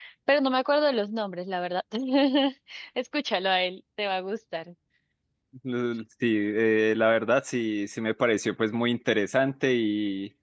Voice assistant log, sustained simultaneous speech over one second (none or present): none